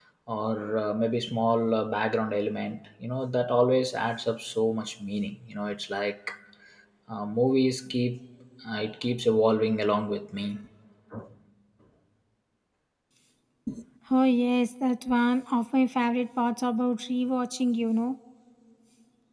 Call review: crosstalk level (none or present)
none